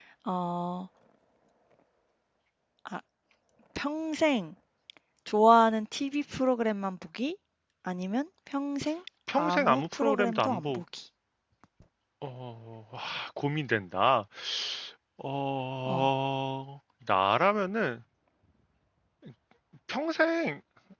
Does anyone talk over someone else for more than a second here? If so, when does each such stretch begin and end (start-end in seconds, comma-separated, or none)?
9.4-10.8